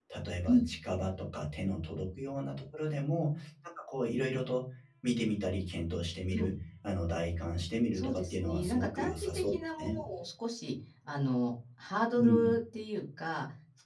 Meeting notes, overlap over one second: present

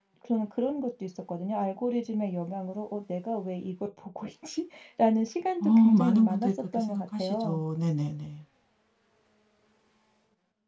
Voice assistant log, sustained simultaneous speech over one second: present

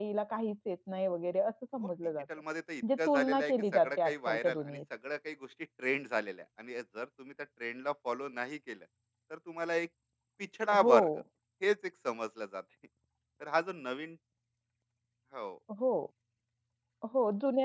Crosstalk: present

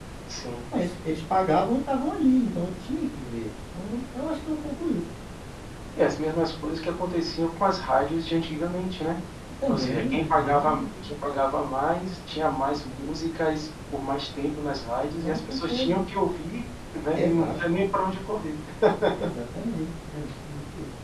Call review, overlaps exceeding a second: present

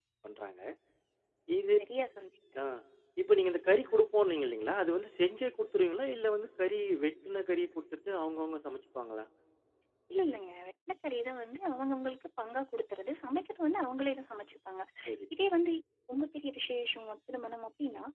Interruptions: none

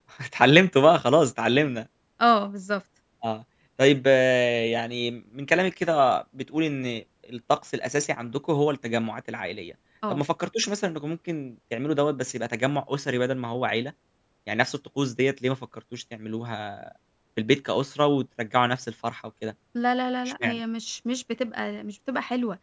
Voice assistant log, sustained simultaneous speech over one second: none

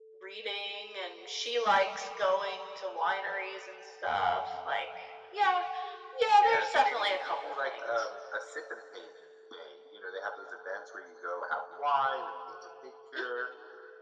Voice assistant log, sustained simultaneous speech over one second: present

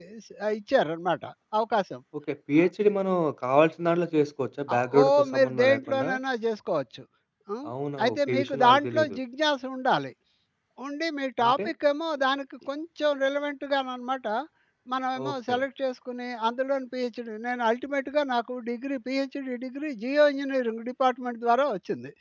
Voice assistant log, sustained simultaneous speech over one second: present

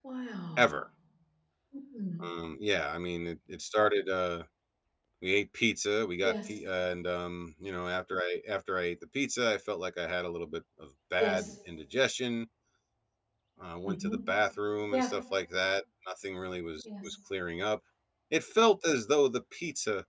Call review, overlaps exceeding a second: none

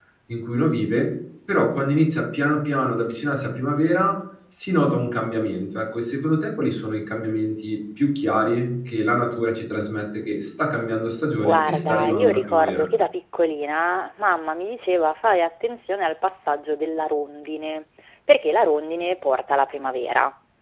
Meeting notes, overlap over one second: present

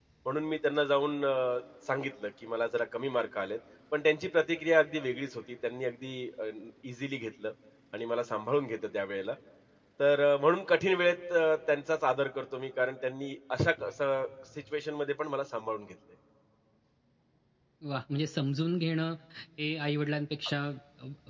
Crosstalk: none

